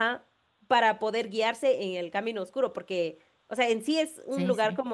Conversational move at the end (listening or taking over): listening